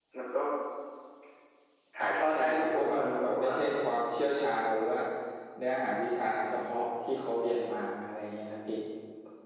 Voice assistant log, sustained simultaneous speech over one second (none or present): present